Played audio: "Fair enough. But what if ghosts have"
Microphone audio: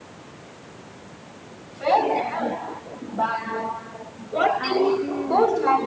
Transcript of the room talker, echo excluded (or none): I mean,